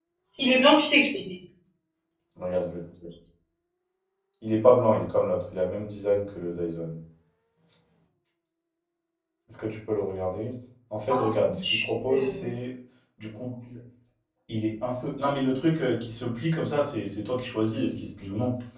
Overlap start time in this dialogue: 11.1 s

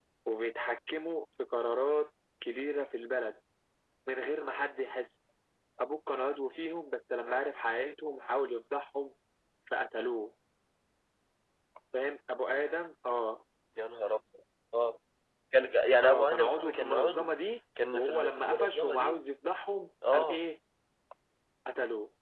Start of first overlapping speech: 16.0 s

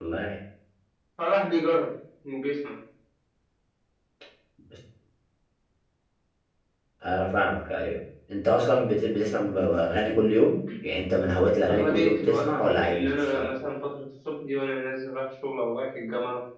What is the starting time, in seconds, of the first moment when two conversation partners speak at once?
11.7 s

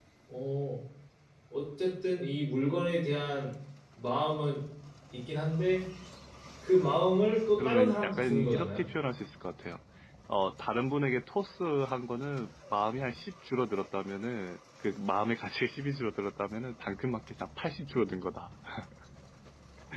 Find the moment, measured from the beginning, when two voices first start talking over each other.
7.6 s

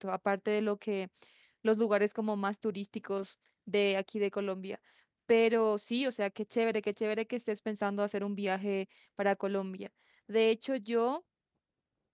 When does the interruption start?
none

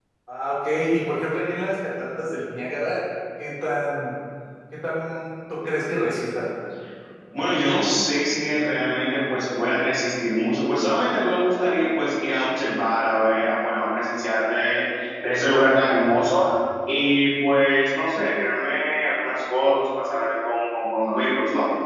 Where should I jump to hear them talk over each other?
none

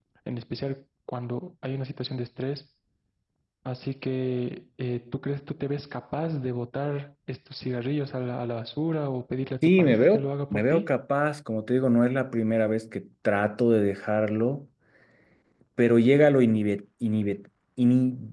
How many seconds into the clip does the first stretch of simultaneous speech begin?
9.6 s

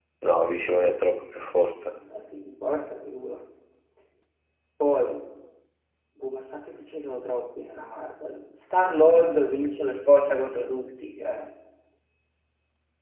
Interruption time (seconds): none

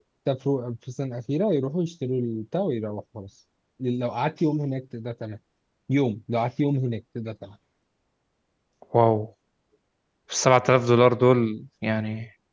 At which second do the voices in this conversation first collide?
none

